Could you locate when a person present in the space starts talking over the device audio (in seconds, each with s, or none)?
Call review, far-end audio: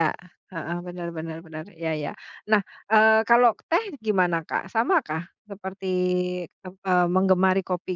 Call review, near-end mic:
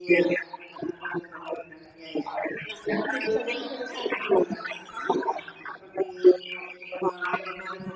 2.9 s